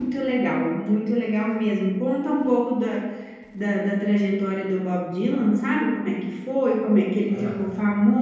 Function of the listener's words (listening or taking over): listening